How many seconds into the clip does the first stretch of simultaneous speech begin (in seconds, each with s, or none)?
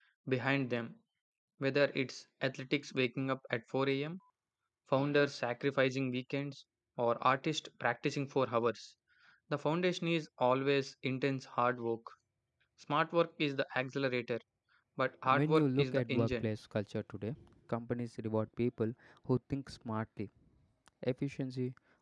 15.3 s